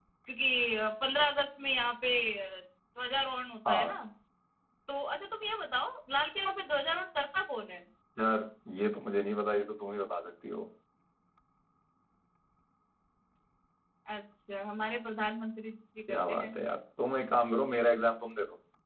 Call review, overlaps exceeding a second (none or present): none